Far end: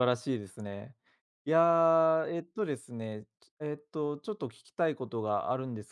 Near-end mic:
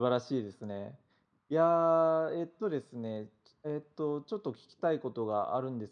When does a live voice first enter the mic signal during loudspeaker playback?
none

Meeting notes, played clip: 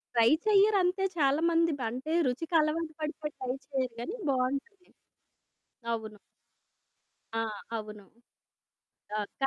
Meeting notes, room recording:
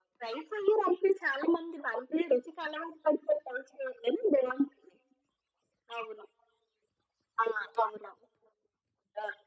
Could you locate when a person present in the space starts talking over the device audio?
none

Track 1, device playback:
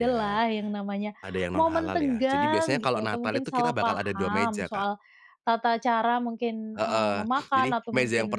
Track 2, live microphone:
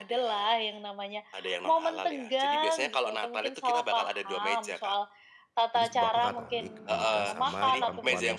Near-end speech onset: 5.7 s

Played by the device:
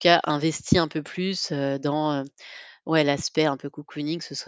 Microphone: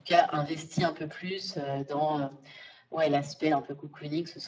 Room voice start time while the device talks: none

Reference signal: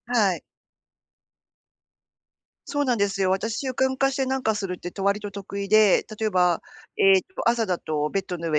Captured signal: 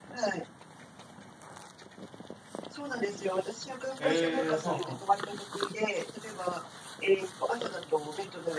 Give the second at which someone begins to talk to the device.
4.0 s

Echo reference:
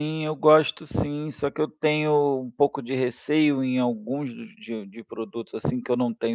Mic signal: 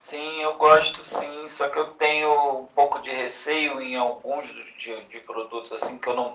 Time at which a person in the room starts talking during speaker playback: none

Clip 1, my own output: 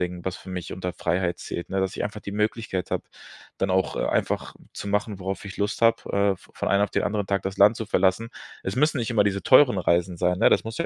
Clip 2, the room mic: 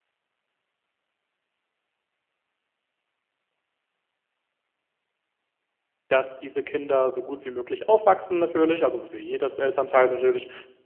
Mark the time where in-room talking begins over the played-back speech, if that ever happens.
6.1 s

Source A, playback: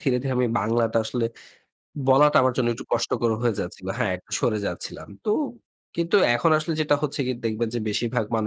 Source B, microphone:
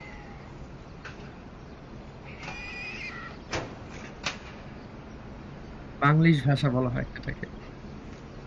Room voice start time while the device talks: 6.0 s

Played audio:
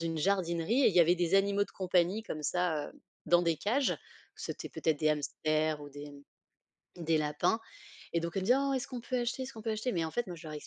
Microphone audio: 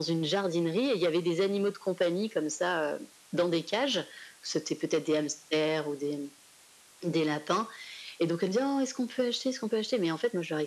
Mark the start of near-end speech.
none

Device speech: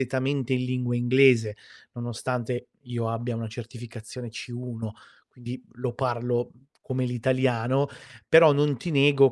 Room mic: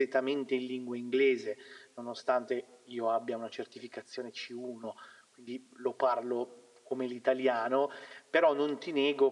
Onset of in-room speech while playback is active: none

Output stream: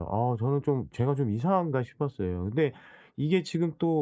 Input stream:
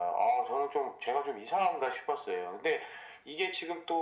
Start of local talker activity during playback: none

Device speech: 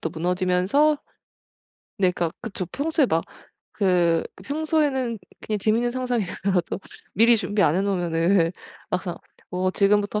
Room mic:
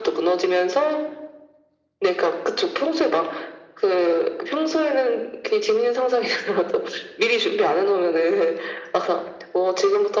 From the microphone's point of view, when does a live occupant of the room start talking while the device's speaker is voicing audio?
none

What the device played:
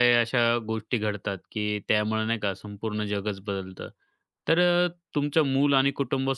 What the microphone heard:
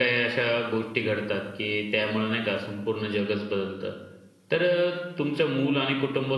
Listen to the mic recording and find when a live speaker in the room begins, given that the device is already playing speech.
none

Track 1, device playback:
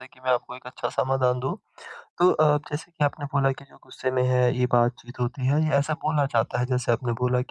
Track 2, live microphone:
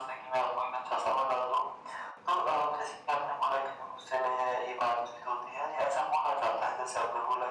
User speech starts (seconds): none

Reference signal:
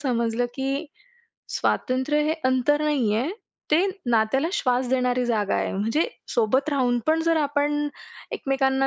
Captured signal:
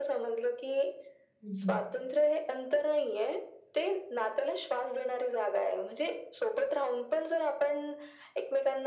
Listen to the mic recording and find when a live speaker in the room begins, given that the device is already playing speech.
1.4 s

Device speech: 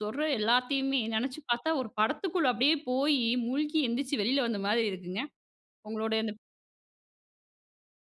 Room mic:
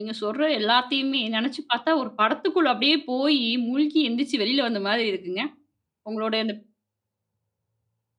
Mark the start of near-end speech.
none

